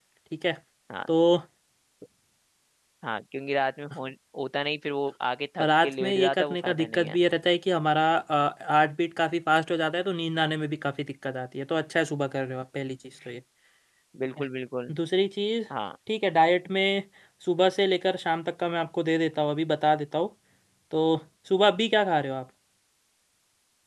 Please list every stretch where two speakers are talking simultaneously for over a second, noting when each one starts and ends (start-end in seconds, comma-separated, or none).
5.8-7.2